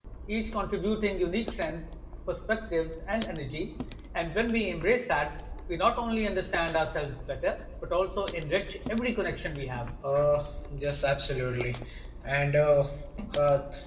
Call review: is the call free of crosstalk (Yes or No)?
Yes